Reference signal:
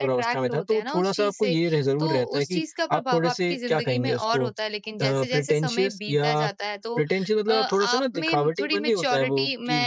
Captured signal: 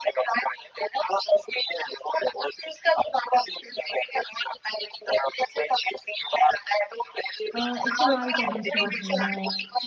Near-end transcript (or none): अ, इस्तेमाल करनी शुरू की हो